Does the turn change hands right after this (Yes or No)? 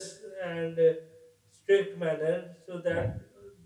No